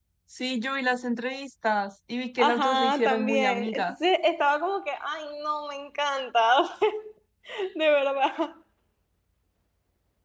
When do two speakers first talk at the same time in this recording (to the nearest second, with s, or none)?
2 s